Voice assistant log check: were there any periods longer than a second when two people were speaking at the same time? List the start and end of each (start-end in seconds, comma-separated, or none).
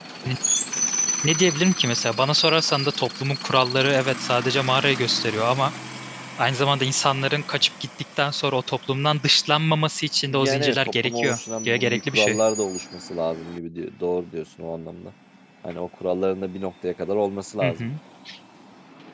10.3-12.4